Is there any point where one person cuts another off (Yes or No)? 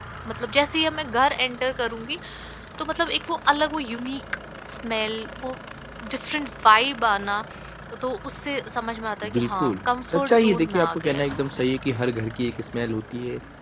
Yes